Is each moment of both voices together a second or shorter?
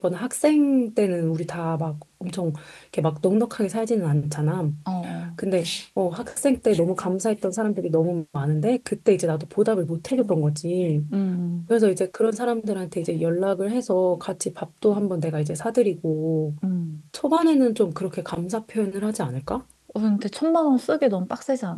Yes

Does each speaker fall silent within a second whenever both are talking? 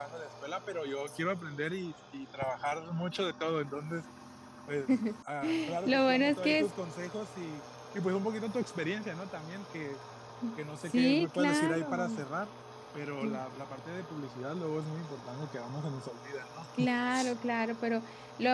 No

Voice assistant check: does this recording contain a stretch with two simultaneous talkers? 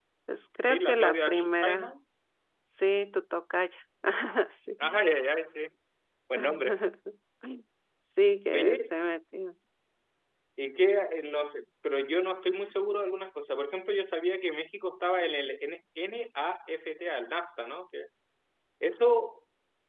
Yes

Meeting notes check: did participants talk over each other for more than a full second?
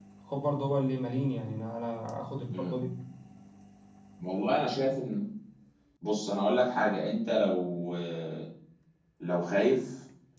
No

